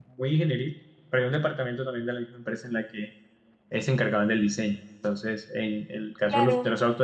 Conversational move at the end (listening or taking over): listening